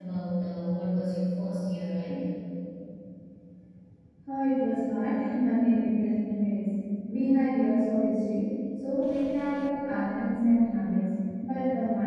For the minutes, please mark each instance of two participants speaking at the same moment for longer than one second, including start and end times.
none

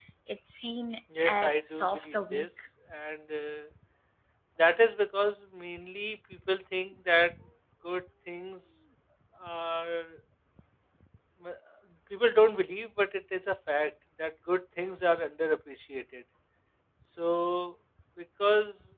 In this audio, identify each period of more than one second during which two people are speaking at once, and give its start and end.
1.2-2.5

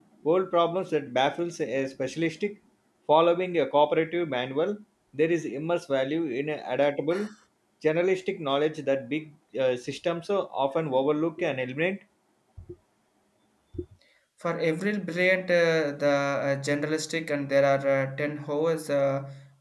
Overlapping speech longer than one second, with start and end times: none

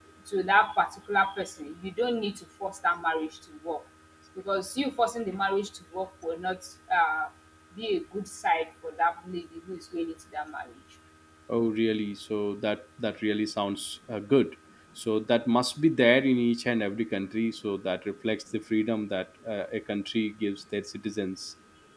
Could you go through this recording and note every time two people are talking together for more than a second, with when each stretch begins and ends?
none

